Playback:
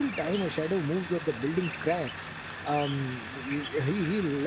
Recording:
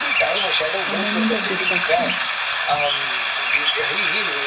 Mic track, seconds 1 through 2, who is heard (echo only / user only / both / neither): both